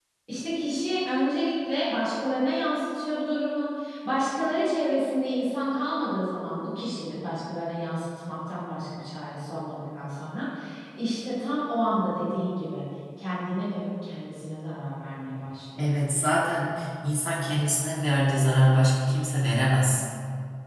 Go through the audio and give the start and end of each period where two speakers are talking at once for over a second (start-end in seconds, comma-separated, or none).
none